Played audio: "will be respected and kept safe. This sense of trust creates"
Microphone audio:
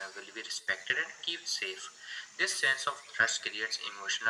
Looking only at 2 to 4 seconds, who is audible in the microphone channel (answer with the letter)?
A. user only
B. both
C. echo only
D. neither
C